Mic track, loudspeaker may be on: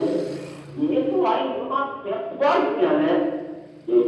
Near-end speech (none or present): none